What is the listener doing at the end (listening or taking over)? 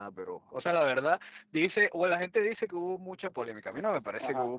taking over